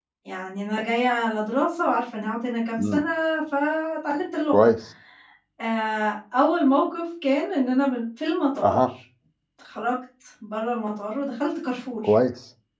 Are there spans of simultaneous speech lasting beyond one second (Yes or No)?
No